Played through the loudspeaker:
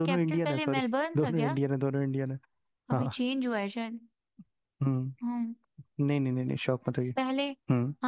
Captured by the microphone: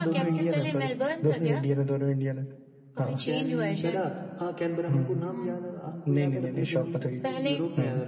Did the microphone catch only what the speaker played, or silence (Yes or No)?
No